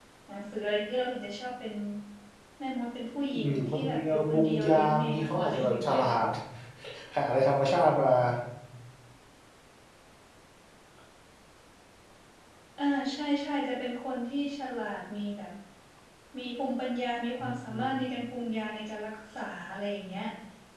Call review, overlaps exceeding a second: present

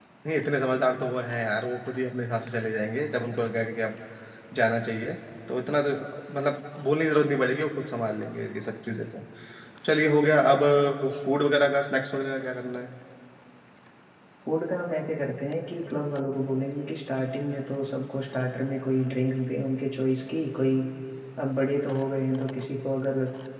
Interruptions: none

